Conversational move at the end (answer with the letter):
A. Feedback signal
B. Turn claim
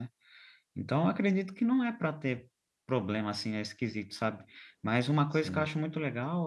A